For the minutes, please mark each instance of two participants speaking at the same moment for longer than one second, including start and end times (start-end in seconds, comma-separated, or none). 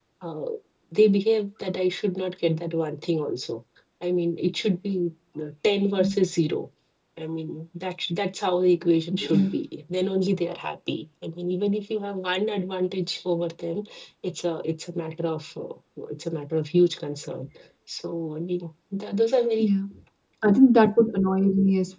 none